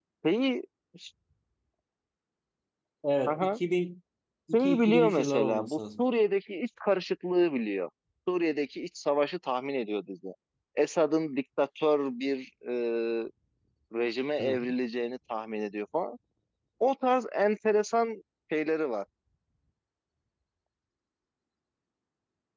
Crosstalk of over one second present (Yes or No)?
Yes